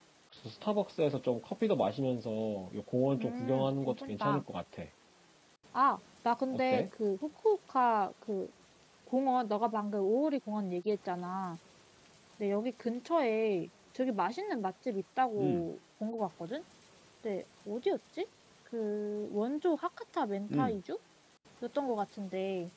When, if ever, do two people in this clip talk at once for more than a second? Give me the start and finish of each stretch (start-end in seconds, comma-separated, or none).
3.2-4.4